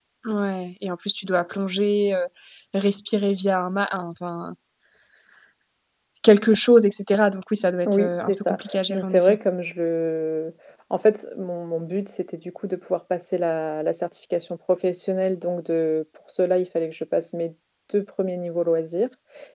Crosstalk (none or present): present